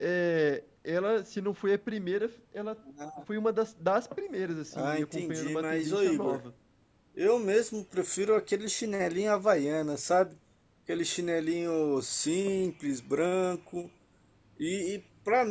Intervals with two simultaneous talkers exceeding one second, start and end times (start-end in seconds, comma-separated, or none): 4.7-6.4